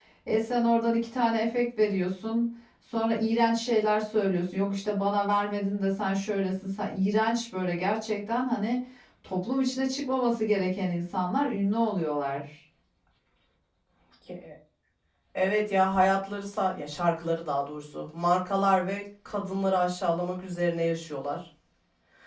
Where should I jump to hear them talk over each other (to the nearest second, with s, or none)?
none